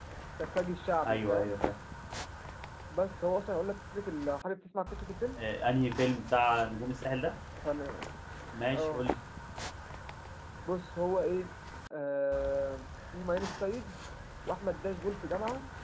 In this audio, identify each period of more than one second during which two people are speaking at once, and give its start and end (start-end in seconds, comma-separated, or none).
none